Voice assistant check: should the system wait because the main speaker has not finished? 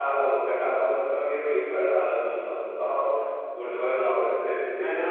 No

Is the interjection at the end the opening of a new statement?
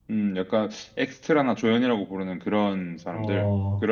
Yes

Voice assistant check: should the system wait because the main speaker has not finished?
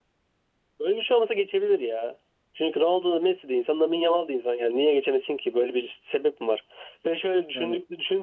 Yes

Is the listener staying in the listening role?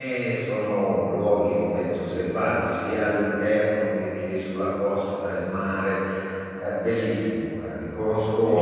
No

